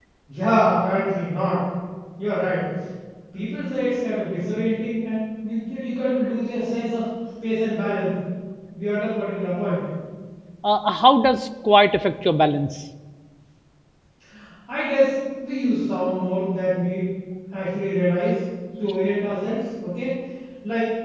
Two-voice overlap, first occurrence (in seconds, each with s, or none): none